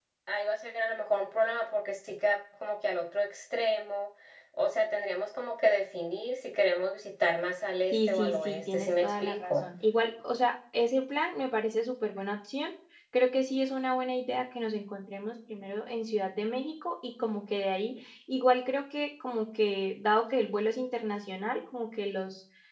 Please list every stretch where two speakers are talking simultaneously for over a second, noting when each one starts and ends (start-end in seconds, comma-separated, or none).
7.9-9.6